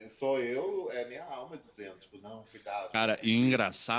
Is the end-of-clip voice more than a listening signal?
Yes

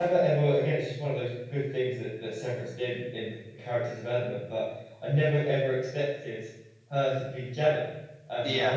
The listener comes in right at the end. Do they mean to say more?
No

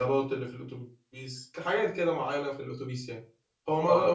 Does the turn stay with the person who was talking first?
Yes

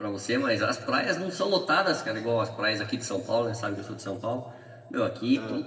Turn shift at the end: No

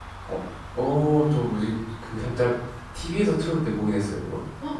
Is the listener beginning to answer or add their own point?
Yes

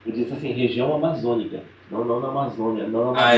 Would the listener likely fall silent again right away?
No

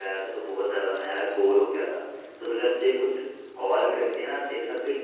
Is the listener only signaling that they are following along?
Yes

